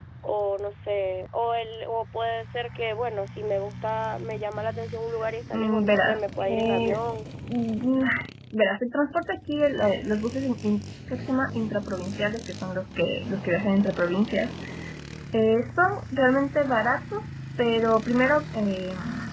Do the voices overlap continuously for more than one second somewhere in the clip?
Yes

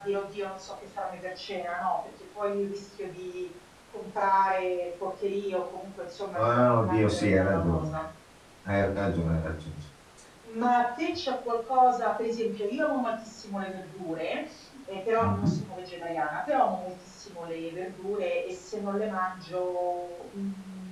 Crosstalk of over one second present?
Yes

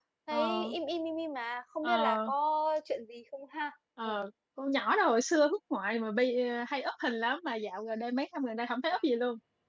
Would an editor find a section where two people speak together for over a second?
No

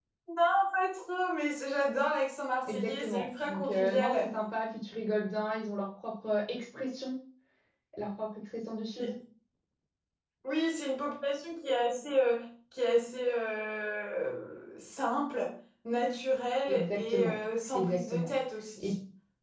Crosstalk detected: Yes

